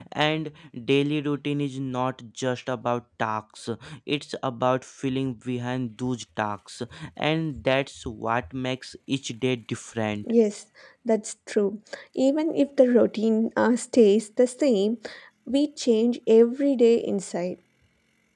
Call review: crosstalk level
none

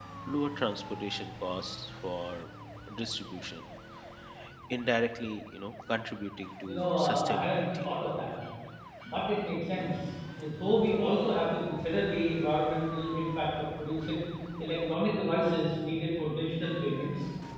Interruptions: present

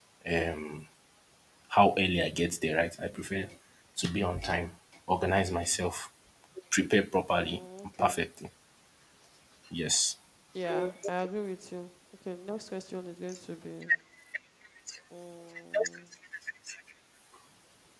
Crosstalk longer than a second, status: none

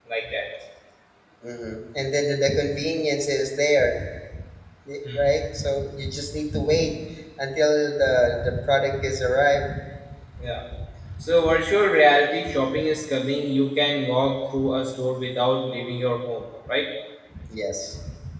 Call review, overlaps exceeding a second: none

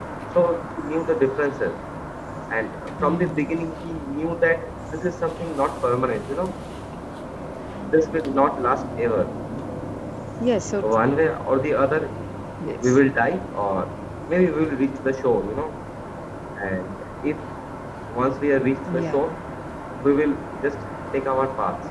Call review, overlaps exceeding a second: none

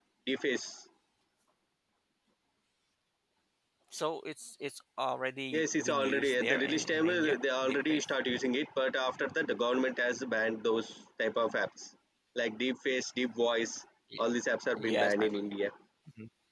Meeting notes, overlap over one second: present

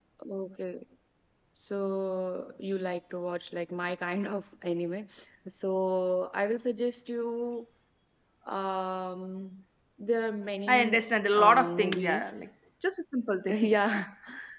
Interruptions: present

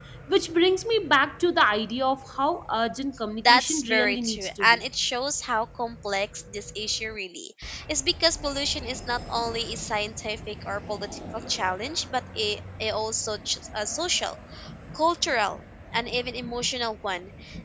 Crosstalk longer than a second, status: present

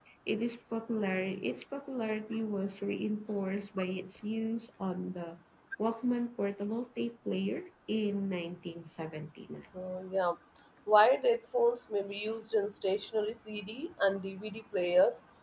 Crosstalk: none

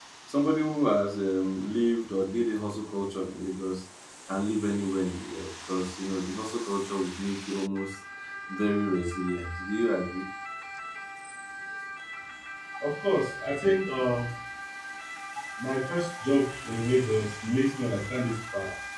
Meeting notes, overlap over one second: none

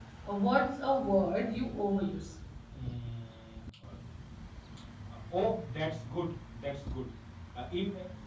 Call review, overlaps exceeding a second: none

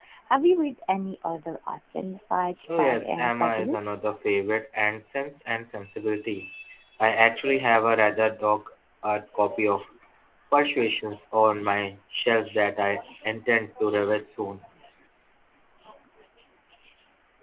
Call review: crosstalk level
present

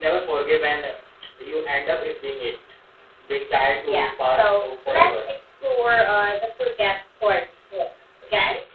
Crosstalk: present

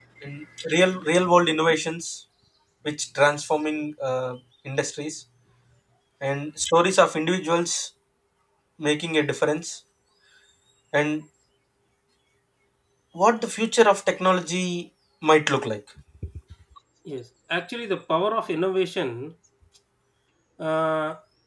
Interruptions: none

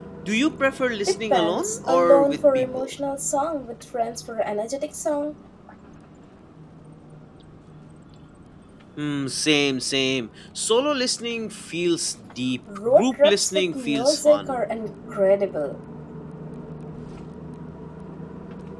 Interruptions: present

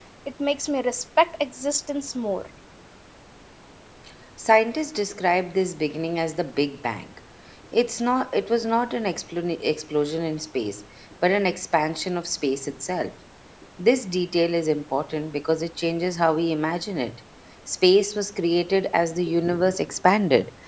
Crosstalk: none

